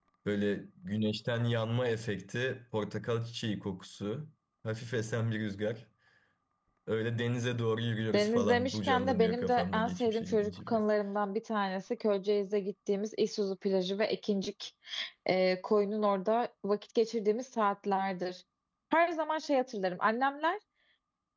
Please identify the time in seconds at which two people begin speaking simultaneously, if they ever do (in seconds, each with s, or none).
8.1 s